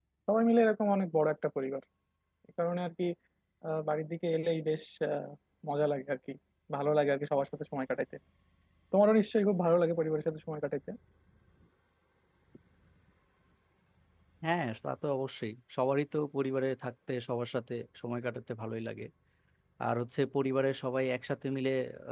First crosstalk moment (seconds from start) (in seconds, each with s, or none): none